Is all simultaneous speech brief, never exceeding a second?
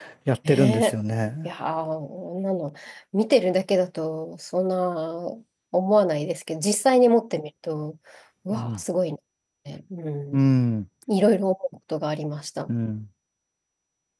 Yes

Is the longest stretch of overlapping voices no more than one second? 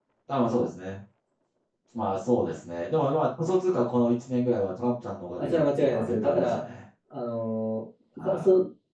No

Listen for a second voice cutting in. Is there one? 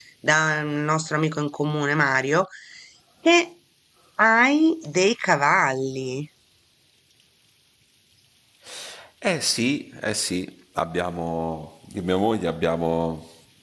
No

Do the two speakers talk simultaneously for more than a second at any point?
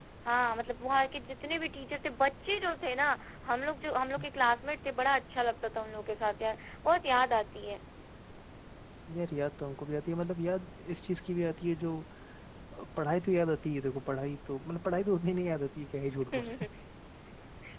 No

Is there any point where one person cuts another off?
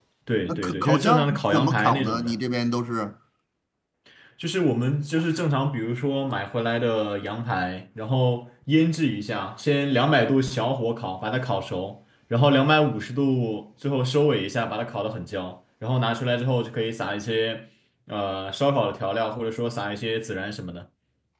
Yes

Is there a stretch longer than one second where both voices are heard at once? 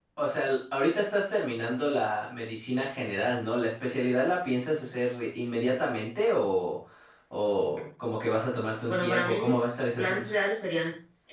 Yes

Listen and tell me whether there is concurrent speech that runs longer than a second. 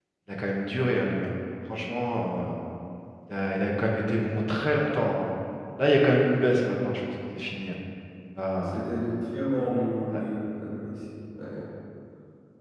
No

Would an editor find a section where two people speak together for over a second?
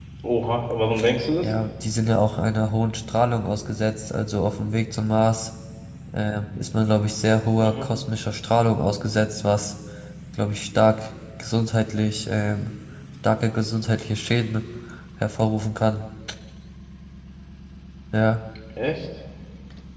No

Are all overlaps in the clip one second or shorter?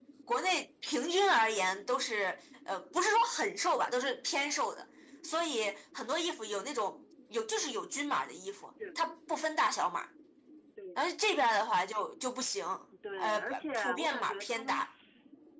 No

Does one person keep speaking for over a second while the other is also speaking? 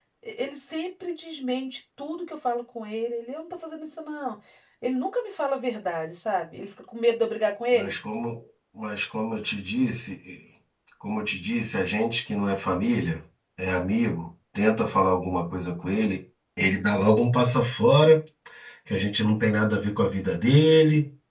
No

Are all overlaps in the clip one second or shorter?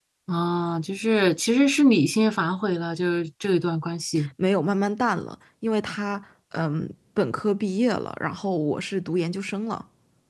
Yes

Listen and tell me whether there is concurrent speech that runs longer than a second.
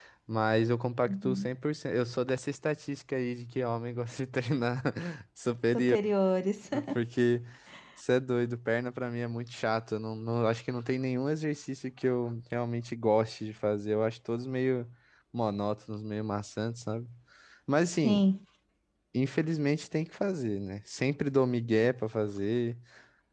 No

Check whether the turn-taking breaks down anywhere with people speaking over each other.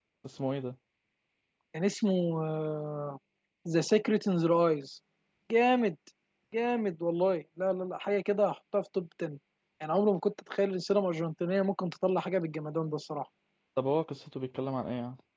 No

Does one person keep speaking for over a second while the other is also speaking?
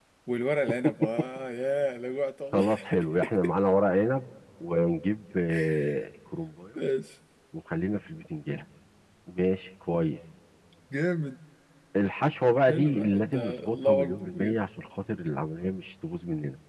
Yes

